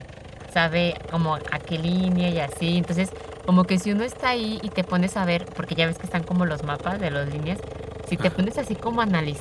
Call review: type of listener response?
listening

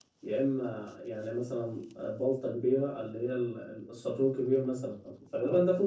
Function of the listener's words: listening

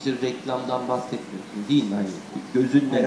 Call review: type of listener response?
listening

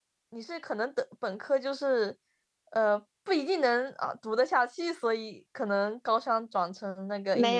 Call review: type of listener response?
taking over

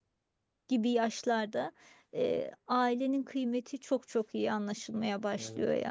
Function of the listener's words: taking over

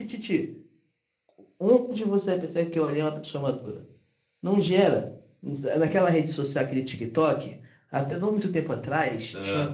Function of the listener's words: listening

